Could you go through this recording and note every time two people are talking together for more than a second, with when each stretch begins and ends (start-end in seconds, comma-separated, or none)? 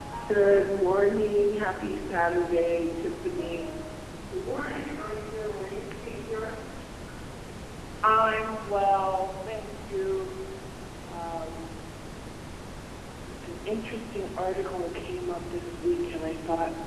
none